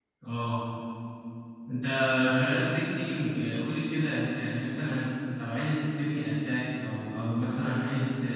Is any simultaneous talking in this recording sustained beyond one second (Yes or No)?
No